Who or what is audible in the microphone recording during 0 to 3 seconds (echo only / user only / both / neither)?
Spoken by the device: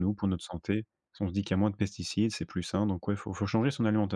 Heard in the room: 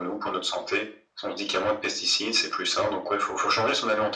echo only